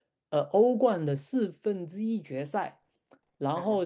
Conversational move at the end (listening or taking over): listening